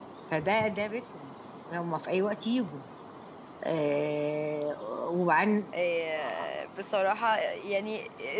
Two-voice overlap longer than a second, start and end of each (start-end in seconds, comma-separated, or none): none